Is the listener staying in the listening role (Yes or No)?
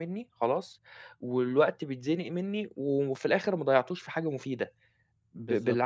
No